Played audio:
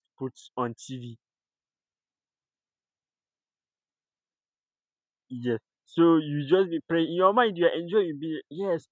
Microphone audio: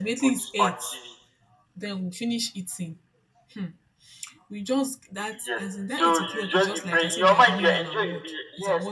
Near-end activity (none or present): present